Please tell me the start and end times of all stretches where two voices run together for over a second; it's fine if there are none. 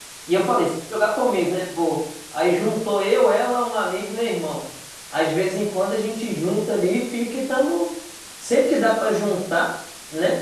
none

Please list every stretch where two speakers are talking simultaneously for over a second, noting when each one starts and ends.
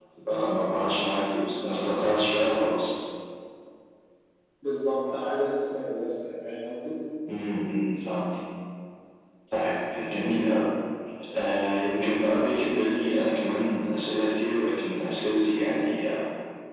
none

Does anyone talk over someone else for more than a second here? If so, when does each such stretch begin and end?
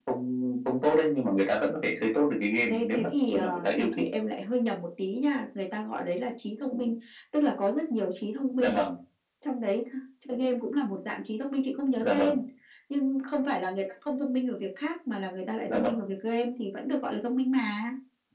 2.7-4.0

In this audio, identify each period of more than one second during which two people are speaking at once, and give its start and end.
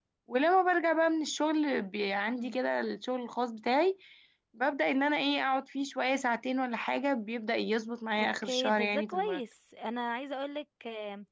8.2-9.4

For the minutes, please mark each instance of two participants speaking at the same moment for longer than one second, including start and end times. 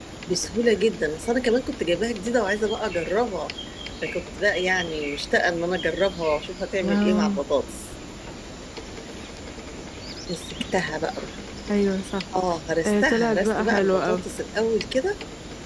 12.9-14.2

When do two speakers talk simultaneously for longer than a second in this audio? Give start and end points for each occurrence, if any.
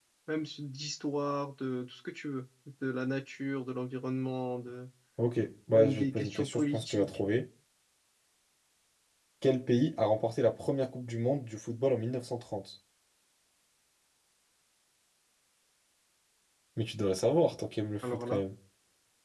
5.8-7.2

